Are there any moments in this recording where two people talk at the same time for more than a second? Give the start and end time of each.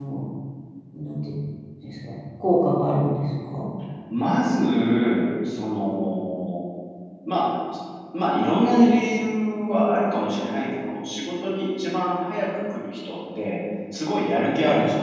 none

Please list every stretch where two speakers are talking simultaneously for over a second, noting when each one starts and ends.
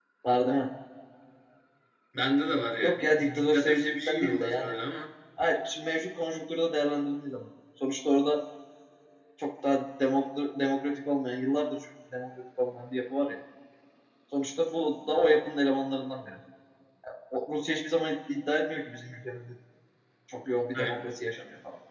2.8-4.7

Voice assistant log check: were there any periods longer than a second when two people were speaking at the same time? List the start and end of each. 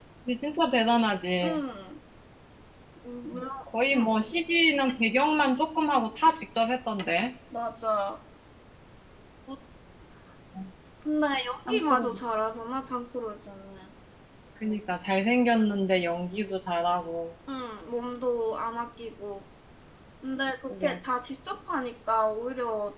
none

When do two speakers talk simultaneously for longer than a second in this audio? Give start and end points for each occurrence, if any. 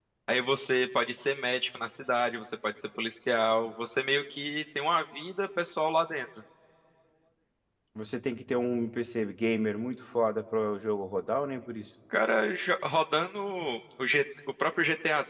none

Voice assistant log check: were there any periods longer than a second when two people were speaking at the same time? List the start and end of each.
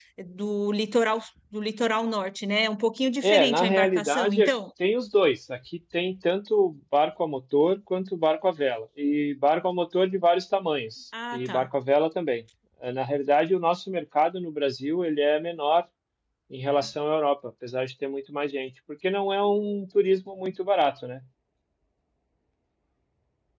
3.2-4.5

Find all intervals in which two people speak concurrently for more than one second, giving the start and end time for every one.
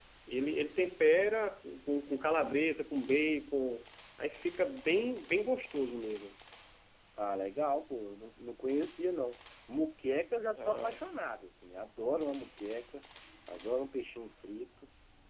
none

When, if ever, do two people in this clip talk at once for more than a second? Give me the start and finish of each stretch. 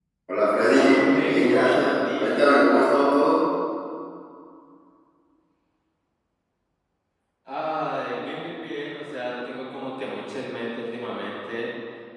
0.6-2.6

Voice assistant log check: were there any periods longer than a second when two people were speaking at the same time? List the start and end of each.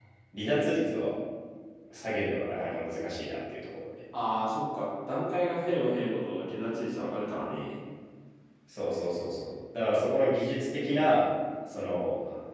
none

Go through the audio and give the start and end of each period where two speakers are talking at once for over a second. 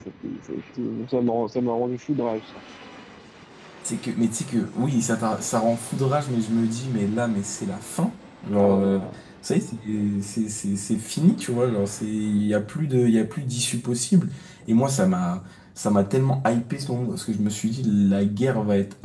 none

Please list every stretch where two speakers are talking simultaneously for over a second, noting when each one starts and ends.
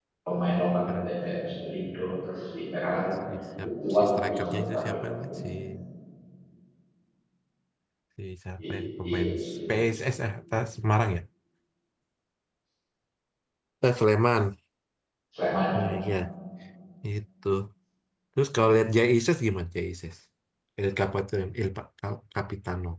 3.6-5.5

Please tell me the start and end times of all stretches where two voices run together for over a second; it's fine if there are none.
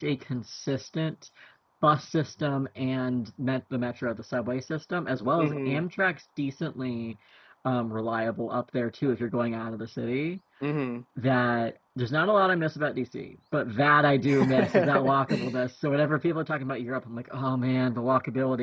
14.3-15.6

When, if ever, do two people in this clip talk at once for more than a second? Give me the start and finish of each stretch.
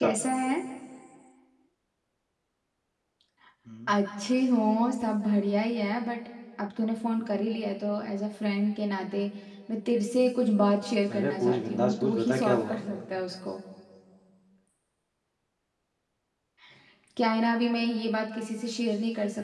11.2-12.8

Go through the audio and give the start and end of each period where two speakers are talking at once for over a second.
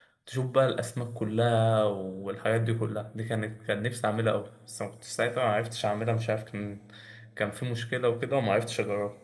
none

